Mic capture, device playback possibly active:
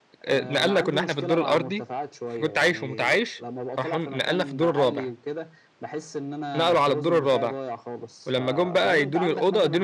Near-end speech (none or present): present